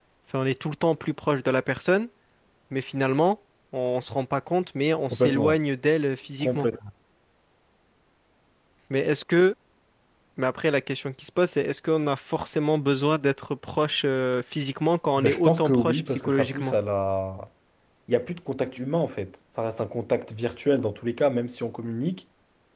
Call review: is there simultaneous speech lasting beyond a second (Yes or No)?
Yes